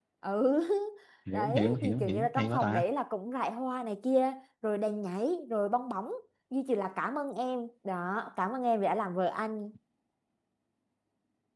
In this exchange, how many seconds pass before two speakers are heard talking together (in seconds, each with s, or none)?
1.3 s